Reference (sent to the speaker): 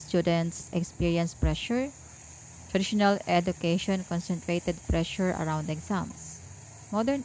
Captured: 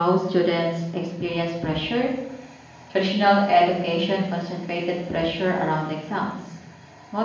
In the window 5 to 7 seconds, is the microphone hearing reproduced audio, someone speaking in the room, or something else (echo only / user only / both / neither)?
echo only